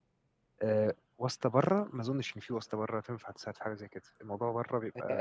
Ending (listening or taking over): taking over